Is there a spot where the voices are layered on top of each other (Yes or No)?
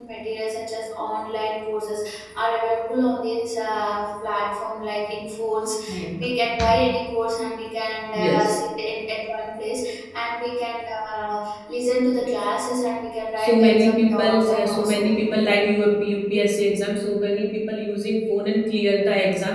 Yes